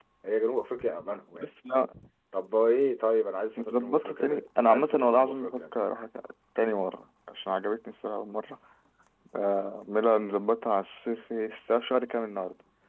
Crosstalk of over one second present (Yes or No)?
Yes